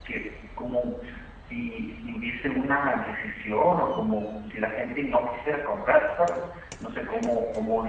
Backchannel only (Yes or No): Yes